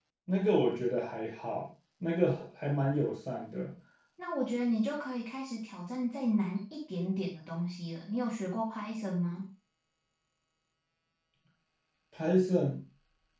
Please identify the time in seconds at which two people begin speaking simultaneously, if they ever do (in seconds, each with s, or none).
none